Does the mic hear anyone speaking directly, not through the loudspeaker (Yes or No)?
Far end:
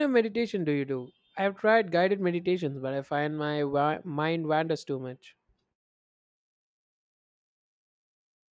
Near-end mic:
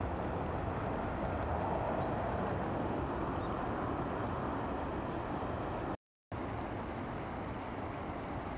No